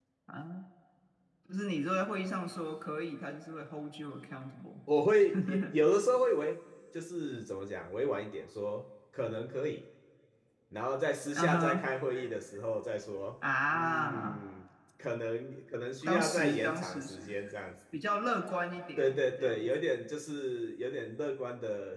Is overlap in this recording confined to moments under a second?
No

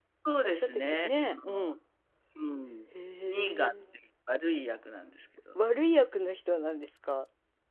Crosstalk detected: Yes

